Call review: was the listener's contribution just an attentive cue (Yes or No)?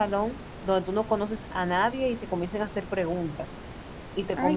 No